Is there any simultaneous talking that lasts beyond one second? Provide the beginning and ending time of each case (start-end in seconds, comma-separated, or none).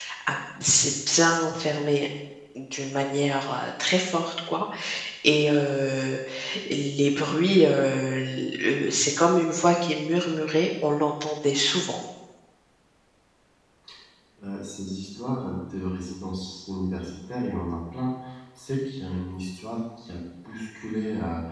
none